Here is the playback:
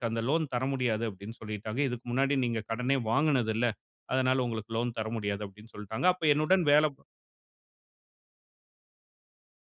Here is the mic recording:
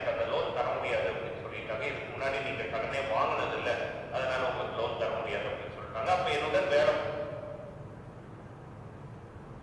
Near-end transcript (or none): none